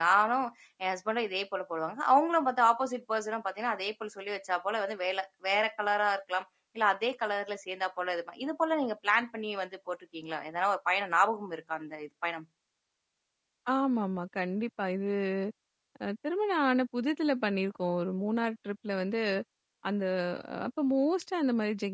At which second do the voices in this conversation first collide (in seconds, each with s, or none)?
none